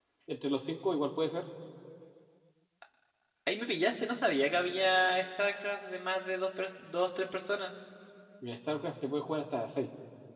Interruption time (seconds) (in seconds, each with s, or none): none